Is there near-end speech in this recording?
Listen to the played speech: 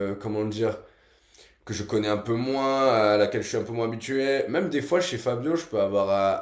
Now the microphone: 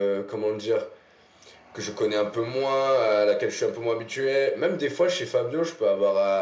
No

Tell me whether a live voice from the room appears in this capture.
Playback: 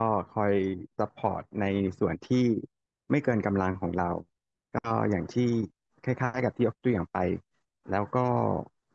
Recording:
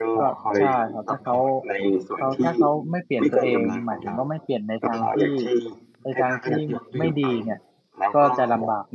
Yes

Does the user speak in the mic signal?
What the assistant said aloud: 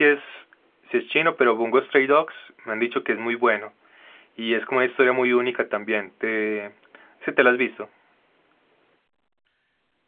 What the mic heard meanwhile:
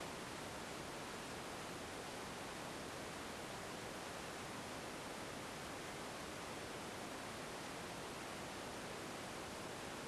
No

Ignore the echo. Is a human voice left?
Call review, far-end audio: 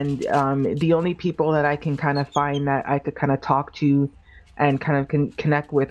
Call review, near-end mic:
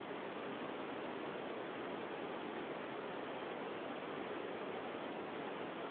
No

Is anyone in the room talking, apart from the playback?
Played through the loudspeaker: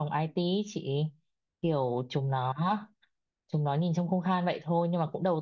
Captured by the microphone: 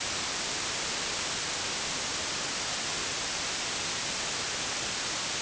No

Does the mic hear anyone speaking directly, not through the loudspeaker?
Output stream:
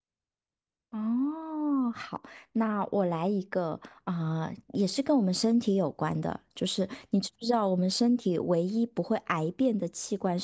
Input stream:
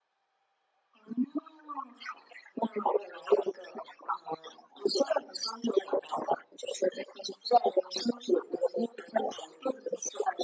No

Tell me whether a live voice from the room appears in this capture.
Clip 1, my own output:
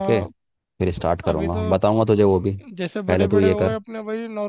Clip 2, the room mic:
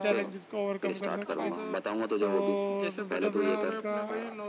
Yes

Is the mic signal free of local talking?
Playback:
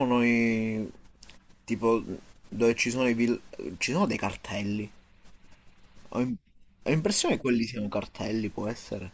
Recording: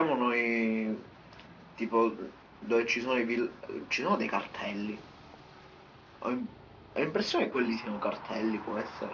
Yes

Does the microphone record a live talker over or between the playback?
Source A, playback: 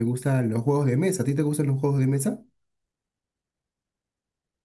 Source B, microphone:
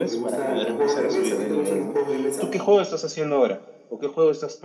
Yes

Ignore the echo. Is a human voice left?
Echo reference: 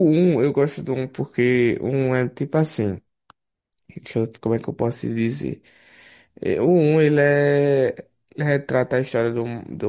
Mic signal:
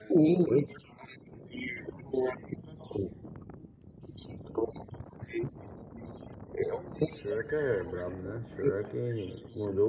Yes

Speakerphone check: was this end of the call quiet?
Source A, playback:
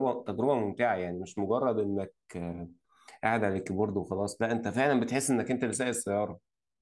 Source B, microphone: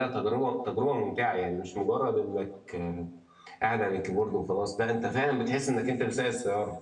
Yes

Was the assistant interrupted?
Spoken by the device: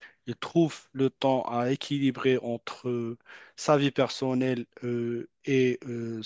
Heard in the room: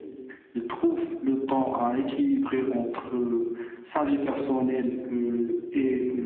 No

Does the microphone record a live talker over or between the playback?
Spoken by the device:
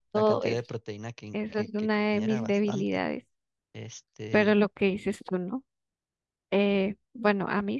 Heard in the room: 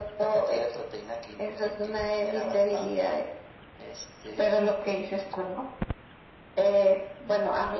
No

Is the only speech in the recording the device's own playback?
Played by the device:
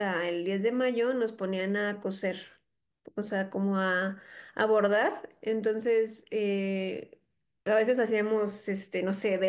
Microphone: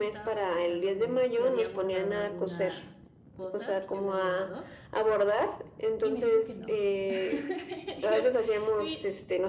No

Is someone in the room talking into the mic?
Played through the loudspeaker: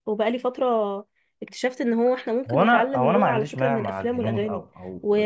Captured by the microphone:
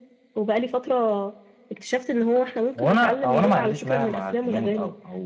No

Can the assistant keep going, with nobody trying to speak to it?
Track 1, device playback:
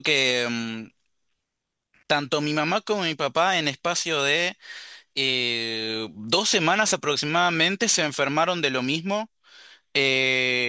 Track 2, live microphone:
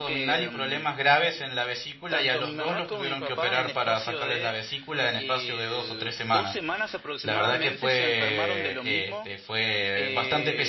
No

